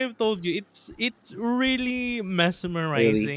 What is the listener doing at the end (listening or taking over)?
listening